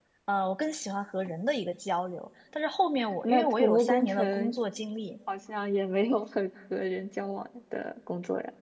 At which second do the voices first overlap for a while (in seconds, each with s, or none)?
3.0 s